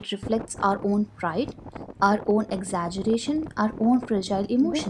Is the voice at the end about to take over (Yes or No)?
Yes